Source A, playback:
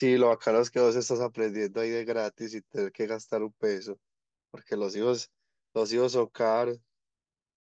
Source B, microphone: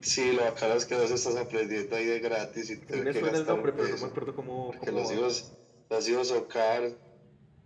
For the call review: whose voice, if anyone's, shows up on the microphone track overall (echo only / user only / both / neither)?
both